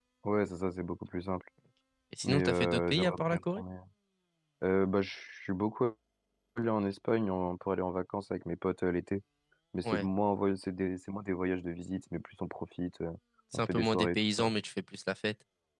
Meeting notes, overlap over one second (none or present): present